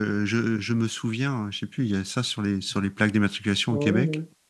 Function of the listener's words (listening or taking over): taking over